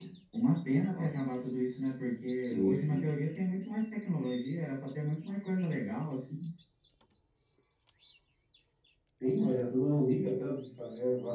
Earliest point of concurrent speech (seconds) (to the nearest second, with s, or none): 1 s